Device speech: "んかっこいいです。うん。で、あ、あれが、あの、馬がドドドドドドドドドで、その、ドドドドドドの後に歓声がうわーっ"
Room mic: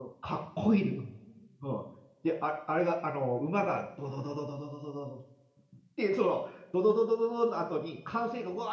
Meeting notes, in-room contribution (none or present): none